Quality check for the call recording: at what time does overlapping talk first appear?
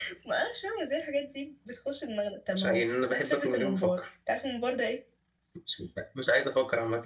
2.6 s

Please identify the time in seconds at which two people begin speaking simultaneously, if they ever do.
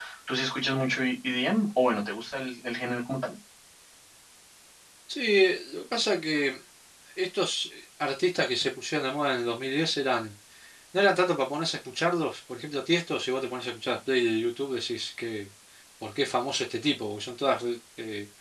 none

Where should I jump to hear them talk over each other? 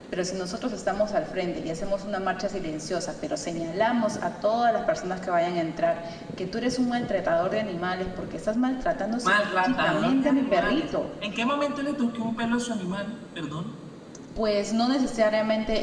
9.2 s

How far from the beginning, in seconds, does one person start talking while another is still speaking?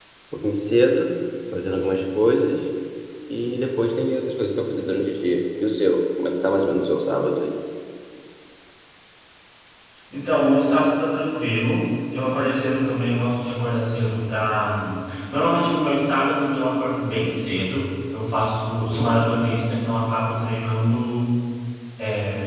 none

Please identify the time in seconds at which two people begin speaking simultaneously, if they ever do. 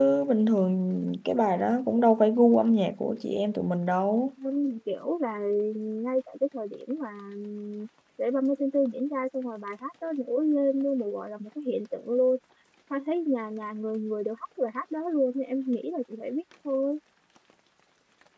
none

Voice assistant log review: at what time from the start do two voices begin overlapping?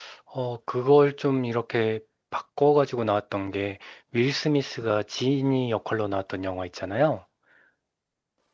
none

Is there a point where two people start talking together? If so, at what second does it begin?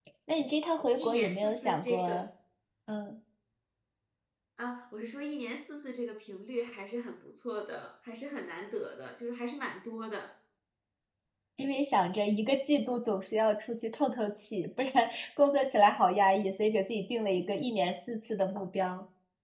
1.0 s

